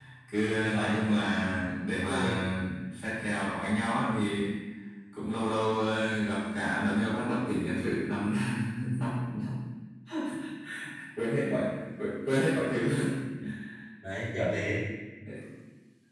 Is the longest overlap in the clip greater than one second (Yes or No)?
No